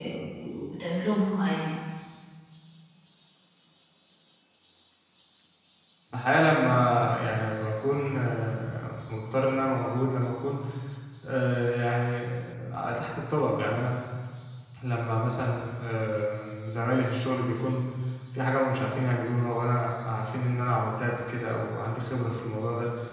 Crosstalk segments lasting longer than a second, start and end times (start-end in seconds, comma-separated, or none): none